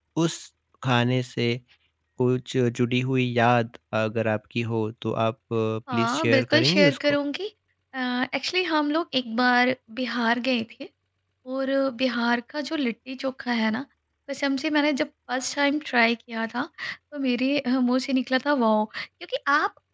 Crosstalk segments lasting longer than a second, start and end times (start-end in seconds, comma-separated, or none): 5.9-7.2